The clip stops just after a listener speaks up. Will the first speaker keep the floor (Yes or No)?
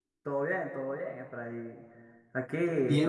No